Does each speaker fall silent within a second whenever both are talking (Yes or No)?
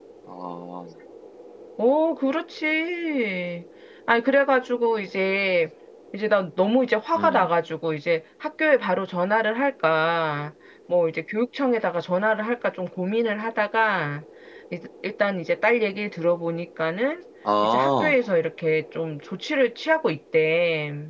Yes